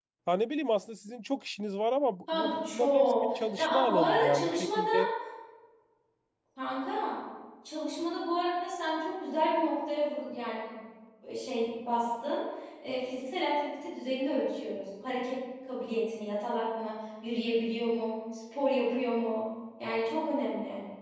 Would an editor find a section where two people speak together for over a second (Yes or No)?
Yes